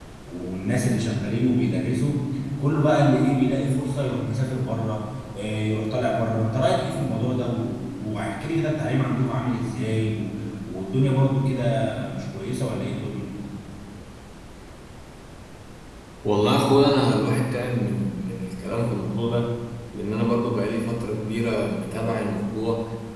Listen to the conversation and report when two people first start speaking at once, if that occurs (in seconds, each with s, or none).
none